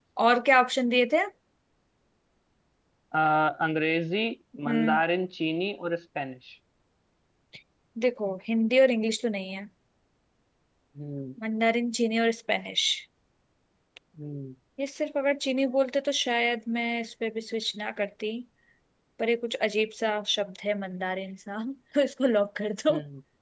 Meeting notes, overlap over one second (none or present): none